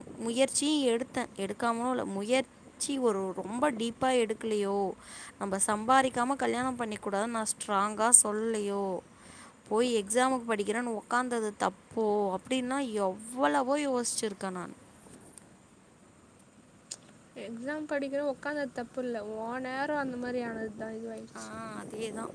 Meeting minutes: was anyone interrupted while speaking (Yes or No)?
No